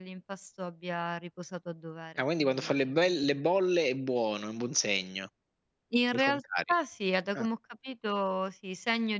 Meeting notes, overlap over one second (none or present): present